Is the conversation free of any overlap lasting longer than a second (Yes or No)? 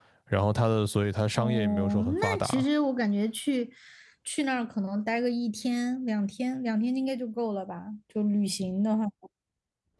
No